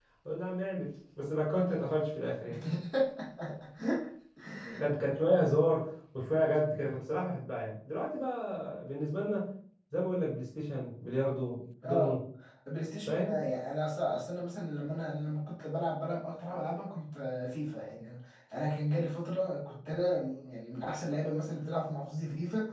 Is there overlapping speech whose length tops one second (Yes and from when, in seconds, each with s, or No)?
No